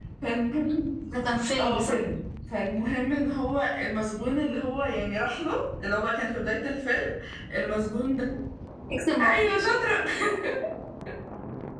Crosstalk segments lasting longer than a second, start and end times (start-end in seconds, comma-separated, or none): none